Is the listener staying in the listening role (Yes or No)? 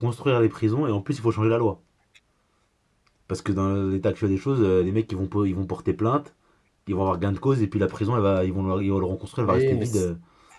No